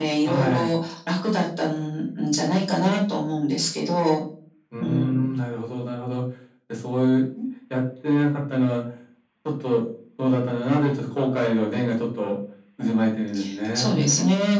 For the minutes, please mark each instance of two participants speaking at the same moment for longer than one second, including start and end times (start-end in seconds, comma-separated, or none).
none